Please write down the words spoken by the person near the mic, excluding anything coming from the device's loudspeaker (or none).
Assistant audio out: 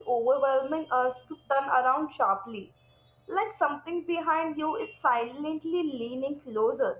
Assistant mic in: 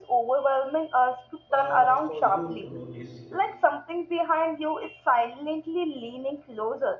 uh, for you to notice